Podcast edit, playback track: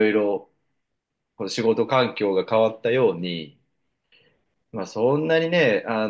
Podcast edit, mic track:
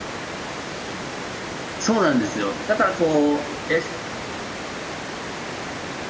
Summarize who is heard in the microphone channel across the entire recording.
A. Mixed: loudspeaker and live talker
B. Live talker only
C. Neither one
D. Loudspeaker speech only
B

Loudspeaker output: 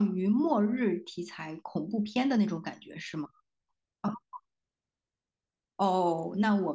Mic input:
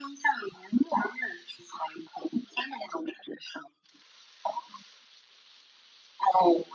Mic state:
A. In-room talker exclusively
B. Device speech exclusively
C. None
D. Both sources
B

